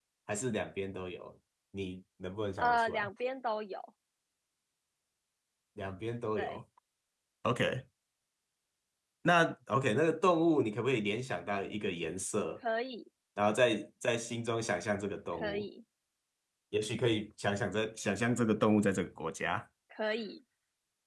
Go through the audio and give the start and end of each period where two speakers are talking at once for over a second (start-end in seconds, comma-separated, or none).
none